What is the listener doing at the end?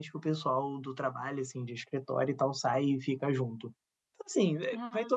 listening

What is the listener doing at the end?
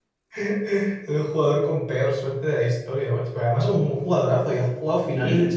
listening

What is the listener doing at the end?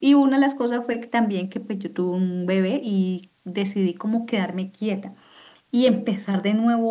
listening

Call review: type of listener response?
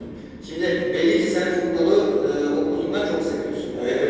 taking over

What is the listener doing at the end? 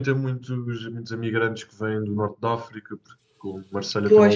listening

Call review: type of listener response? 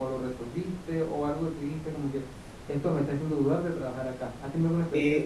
taking over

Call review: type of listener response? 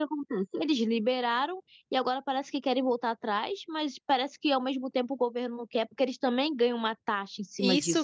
taking over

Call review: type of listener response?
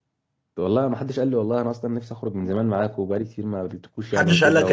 taking over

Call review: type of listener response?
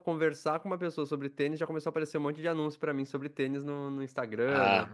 taking over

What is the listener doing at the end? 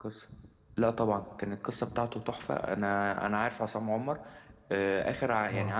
listening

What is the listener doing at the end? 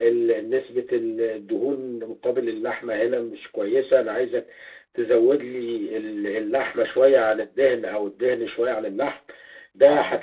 listening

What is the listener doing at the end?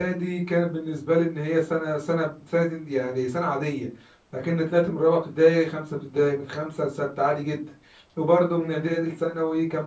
listening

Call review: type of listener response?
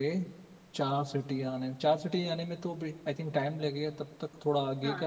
taking over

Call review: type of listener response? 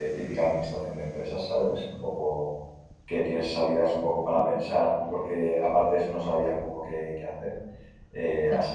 listening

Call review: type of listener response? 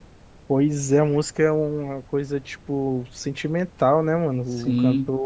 taking over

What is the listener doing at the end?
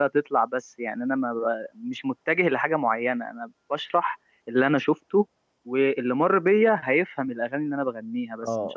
taking over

